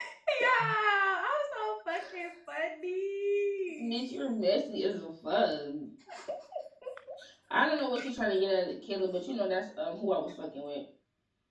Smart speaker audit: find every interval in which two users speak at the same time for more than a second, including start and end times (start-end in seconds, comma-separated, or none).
none